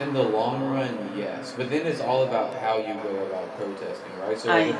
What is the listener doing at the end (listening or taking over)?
listening